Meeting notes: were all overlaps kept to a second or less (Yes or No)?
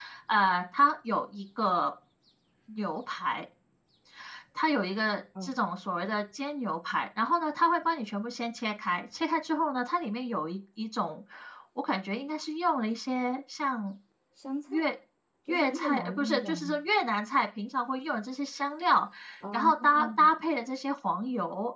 No